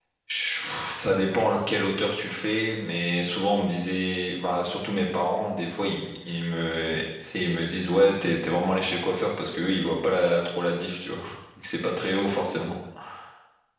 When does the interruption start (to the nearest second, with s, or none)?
none